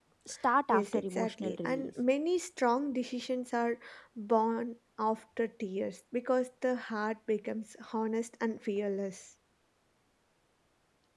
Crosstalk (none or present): present